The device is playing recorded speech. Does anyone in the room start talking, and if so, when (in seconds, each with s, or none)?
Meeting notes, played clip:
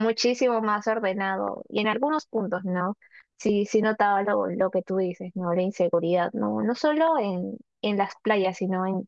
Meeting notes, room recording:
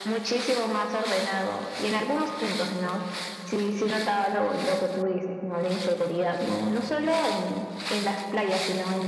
none